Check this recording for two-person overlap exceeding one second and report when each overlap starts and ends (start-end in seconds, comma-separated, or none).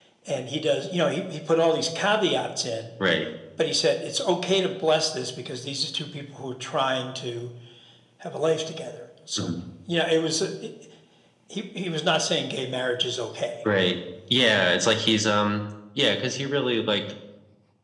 none